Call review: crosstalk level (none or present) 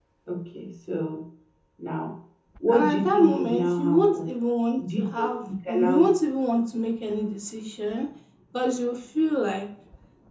present